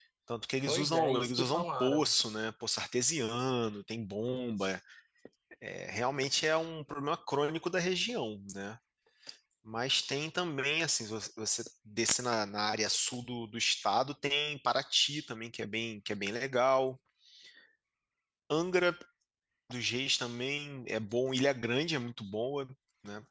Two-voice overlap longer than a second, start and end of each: 0.7-2.1

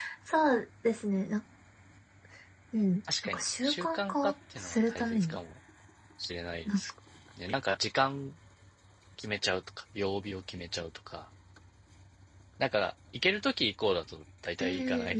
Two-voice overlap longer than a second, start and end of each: 3.2-5.4

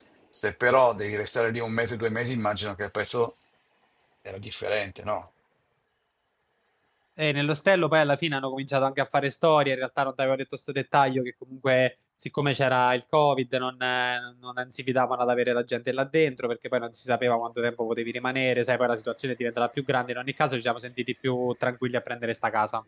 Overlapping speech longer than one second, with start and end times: none

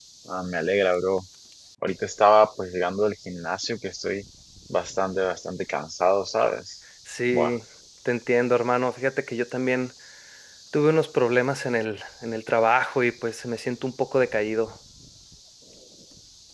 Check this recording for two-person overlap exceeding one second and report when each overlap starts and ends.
none

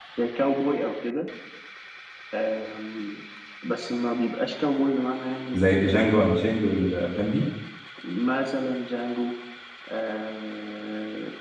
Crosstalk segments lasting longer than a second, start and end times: 5.6-7.0

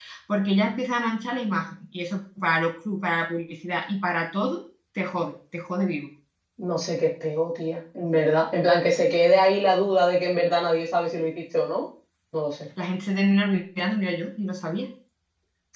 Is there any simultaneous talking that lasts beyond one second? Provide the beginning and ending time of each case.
none

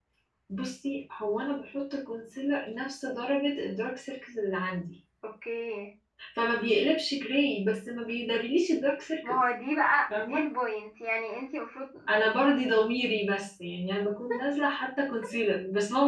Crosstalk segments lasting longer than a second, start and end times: none

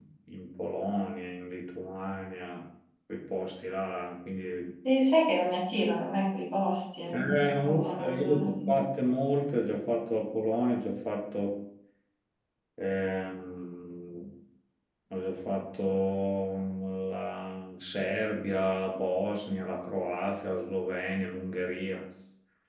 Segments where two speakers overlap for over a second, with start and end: 7.1-8.9

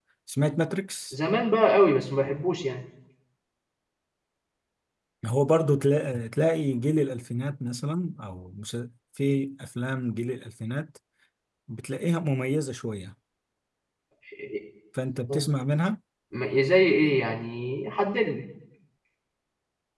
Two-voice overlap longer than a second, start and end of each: none

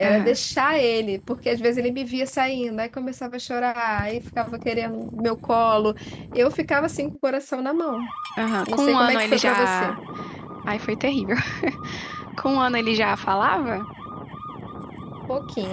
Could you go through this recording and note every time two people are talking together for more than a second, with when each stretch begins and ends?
8.7-9.9

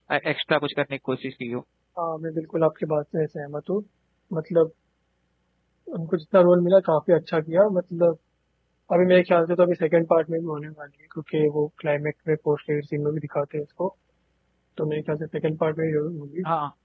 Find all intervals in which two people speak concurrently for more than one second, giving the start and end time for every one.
none

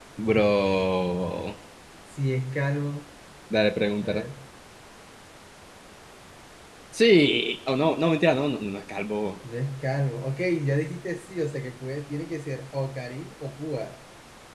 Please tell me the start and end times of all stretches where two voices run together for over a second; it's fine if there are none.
none

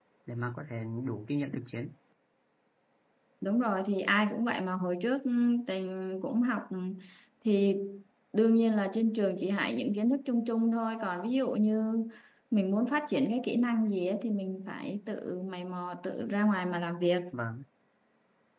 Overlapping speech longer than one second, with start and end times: none

